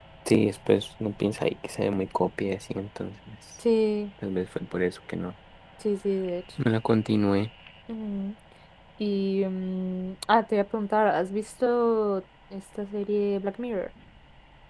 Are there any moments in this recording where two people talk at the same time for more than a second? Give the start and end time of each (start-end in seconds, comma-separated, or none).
none